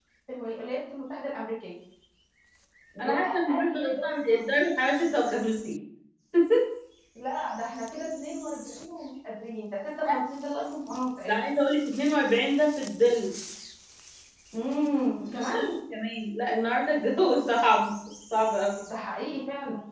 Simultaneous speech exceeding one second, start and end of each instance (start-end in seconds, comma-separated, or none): 3.0-4.4